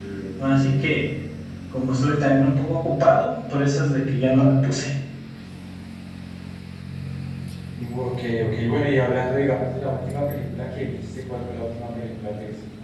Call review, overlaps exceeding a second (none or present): none